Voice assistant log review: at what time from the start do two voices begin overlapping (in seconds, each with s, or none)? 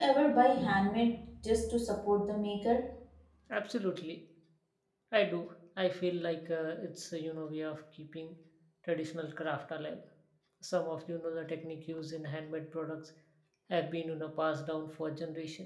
none